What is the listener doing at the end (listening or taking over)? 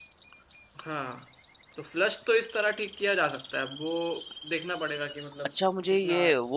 taking over